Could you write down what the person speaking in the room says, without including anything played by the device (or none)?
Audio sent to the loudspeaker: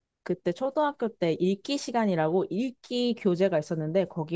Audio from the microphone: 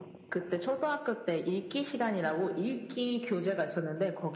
none